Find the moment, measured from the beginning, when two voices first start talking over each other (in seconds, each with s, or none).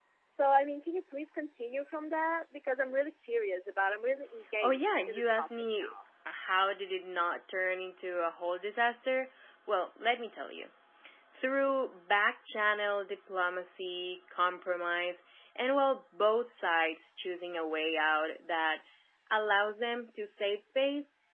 4.6 s